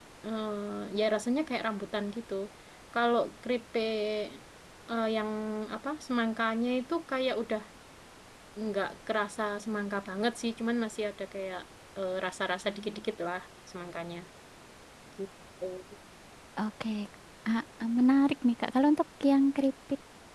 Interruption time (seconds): none

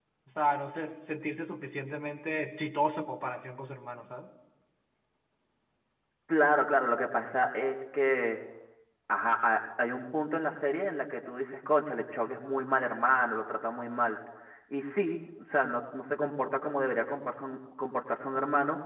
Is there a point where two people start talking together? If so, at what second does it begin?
none

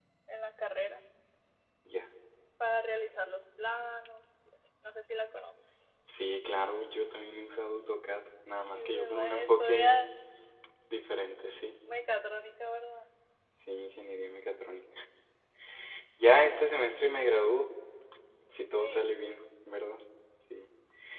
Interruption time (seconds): 8.7 s

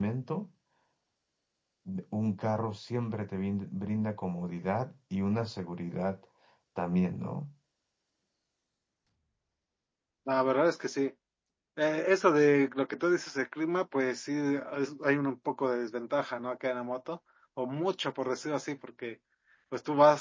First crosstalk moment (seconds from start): none

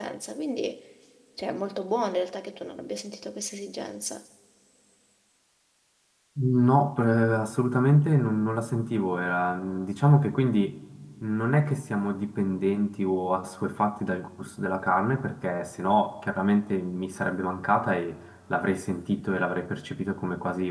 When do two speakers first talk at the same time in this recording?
none

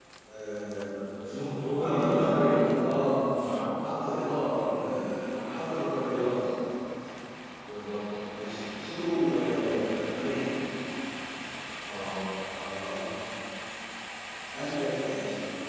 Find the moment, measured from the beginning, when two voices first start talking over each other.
1.7 s

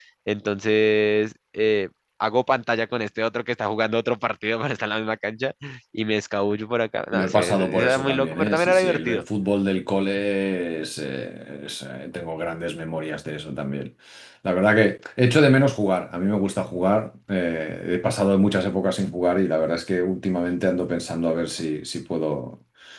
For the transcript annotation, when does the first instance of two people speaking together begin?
7.1 s

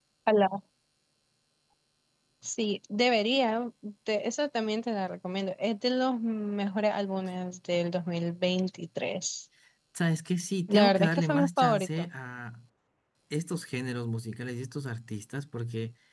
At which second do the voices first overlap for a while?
10.7 s

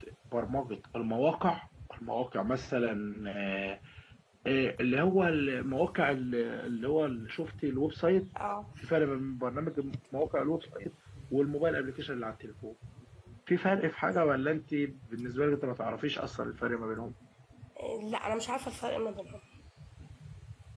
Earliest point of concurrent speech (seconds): none

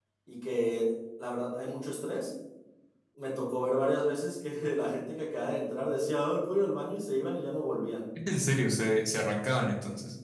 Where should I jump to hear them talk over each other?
none

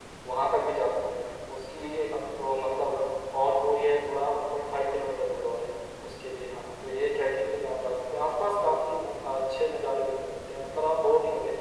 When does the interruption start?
none

